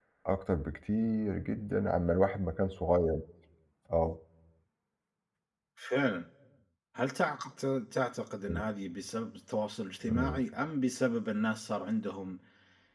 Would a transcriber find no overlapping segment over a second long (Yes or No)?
Yes